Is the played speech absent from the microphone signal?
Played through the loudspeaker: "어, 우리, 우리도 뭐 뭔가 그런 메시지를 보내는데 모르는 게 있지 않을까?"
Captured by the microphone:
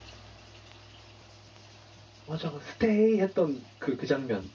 Yes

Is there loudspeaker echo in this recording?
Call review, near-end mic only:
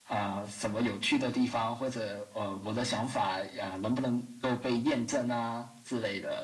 Yes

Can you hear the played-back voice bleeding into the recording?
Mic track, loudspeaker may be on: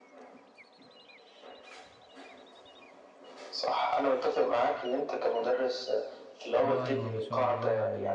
Yes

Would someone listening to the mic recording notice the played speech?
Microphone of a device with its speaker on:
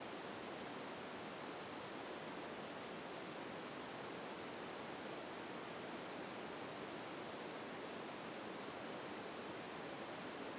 No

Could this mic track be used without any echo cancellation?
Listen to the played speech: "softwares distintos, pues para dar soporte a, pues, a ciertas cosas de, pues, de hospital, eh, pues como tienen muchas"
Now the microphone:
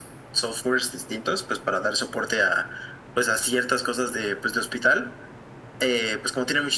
No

